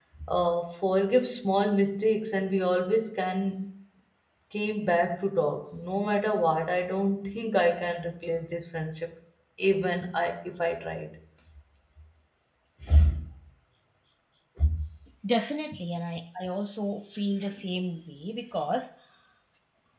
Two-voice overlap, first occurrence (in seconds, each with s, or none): none